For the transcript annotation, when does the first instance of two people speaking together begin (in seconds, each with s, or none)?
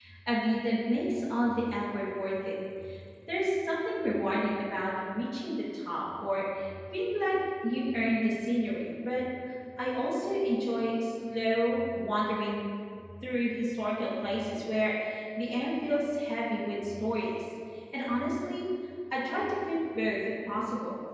none